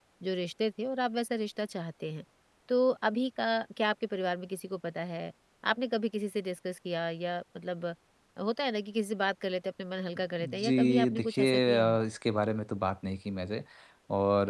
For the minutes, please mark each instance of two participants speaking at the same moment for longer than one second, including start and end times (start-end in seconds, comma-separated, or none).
10.4-12.0